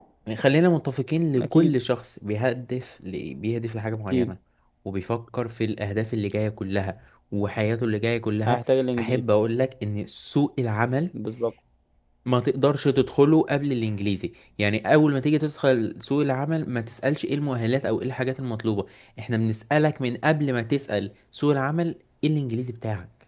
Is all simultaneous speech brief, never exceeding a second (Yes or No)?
Yes